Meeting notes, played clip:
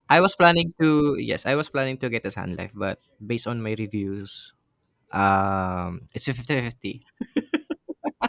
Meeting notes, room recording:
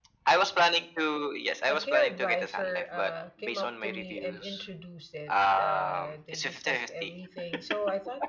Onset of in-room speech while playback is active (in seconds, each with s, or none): 1.7 s